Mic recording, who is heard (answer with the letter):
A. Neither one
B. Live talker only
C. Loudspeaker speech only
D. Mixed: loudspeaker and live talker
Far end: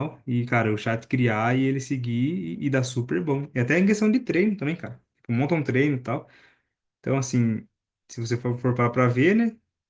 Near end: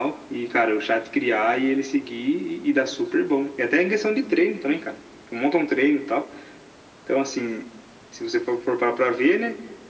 C